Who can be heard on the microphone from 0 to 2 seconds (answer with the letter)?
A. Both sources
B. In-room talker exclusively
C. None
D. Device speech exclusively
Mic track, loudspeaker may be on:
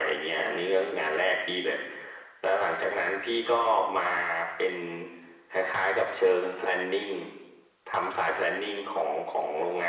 D